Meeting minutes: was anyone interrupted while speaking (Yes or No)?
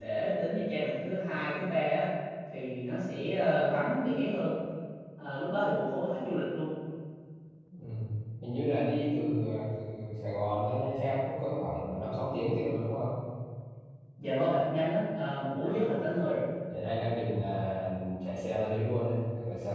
No